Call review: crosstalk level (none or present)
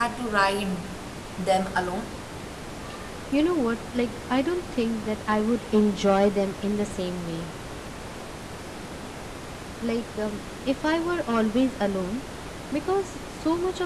none